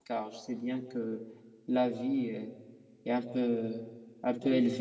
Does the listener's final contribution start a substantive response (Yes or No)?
No